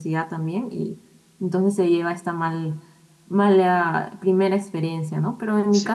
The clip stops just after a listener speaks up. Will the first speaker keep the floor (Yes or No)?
Yes